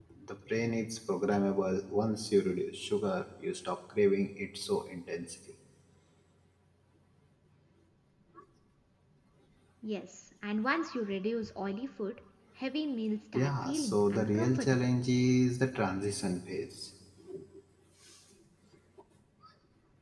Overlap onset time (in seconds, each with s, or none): 13.3 s